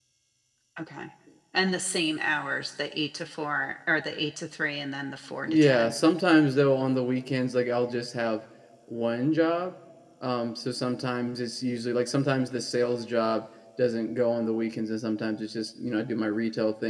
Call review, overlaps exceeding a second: none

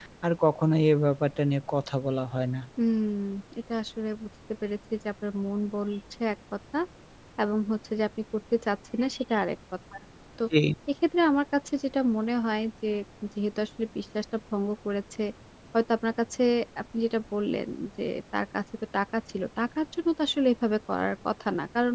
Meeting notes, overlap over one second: none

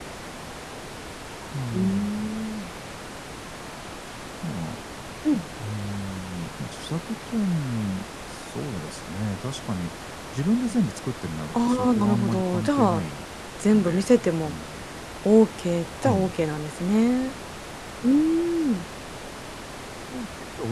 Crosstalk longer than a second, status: present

